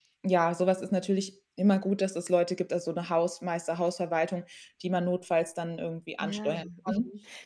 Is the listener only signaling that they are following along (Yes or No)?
No